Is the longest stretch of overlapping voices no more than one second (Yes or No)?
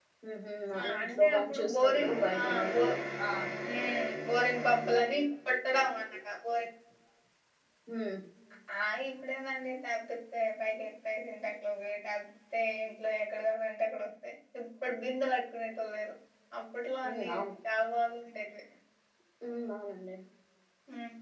No